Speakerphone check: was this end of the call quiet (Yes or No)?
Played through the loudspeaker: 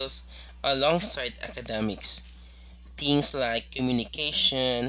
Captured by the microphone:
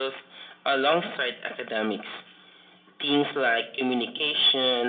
Yes